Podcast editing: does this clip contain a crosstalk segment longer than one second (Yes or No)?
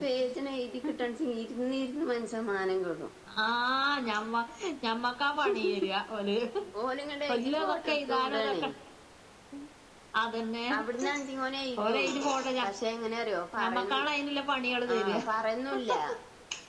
Yes